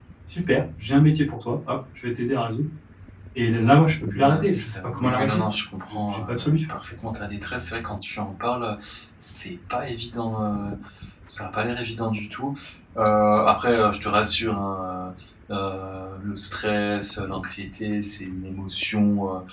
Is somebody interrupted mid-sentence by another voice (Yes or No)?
Yes